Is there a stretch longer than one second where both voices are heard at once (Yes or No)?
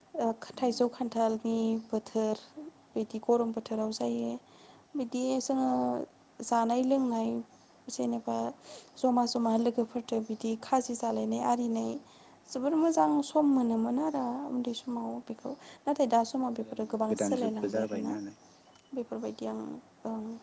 Yes